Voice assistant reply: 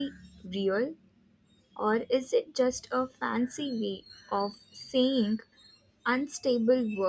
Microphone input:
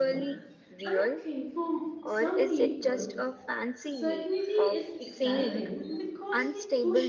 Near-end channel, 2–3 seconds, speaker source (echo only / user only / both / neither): both